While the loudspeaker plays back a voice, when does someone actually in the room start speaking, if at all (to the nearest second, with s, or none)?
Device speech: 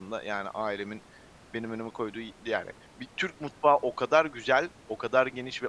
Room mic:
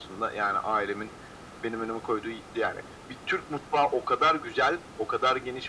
none